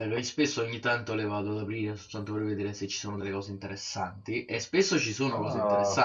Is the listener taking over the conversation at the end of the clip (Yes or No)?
No